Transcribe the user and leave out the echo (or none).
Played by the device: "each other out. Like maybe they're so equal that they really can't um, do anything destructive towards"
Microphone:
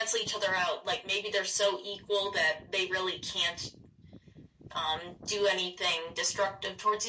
none